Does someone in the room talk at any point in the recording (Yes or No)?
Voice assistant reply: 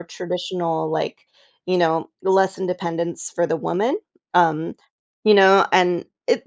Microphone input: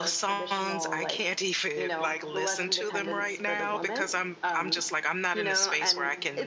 Yes